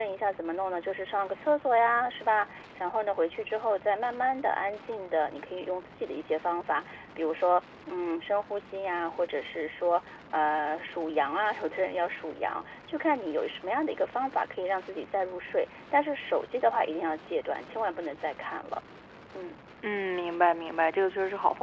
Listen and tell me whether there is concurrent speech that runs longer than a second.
No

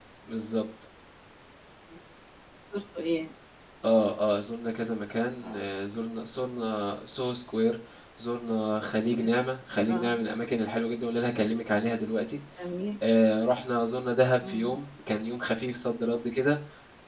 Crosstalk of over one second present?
No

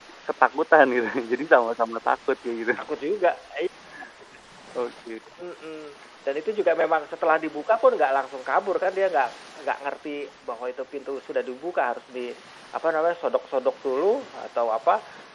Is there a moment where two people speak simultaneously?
No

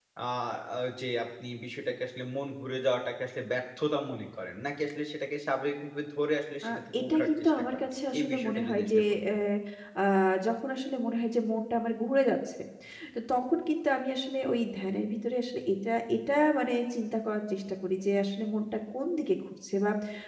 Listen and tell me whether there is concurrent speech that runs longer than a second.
Yes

